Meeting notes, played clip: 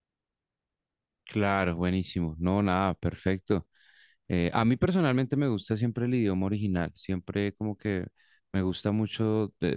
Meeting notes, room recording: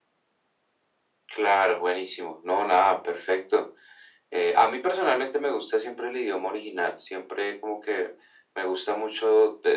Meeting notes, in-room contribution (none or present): none